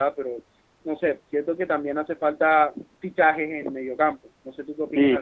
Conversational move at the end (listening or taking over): taking over